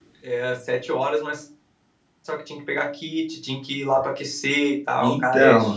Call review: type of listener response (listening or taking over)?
taking over